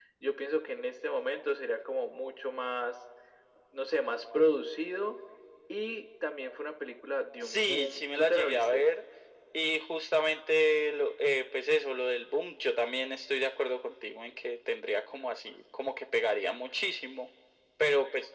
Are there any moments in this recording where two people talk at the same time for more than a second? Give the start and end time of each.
7.4-8.9

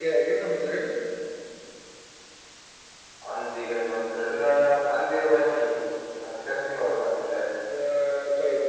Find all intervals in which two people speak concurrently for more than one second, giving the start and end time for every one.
none

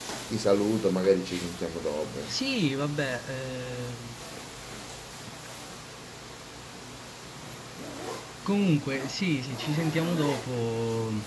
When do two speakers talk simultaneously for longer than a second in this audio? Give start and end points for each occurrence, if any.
none

